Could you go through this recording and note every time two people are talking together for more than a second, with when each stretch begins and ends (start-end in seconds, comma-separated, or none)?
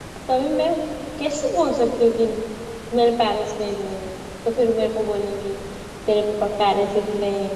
none